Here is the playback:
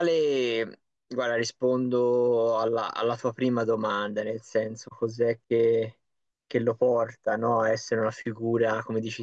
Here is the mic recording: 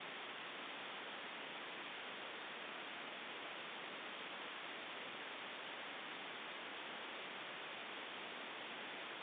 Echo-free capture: Yes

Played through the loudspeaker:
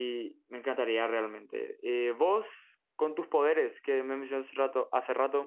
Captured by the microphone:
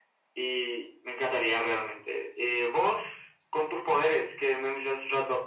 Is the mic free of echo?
No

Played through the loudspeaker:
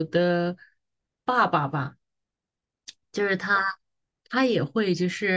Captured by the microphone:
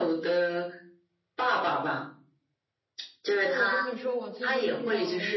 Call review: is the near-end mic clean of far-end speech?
No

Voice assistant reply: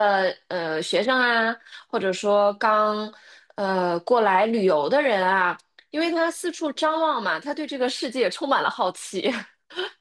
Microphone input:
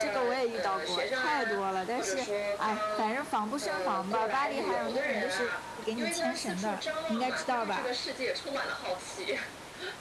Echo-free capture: No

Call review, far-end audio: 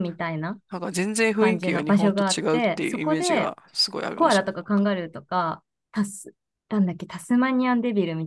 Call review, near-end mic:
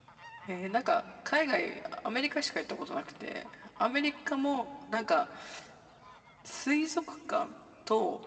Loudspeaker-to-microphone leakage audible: No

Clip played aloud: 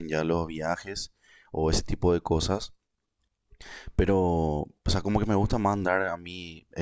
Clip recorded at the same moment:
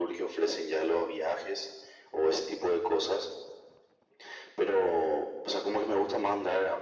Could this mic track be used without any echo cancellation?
No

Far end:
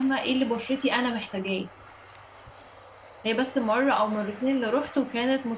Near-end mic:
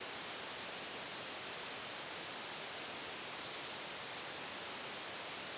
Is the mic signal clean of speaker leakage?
Yes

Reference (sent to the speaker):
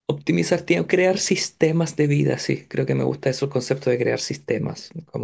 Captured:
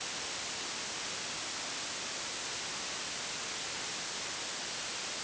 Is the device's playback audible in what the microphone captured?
No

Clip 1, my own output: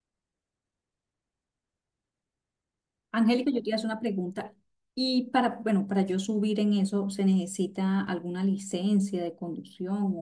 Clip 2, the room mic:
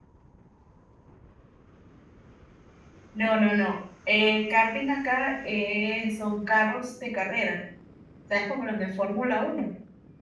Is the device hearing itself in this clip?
No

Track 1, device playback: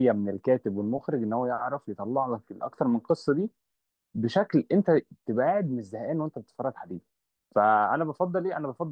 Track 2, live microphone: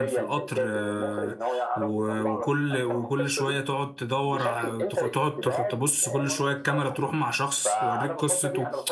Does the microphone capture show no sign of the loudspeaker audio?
No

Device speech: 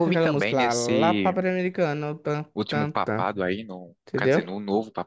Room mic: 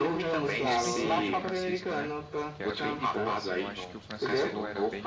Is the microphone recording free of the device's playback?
No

